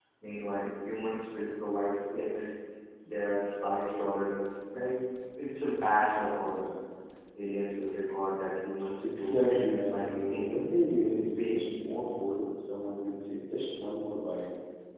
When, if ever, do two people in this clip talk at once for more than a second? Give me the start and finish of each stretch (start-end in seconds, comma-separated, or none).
9.0-10.4